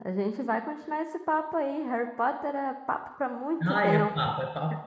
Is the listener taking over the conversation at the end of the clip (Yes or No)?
Yes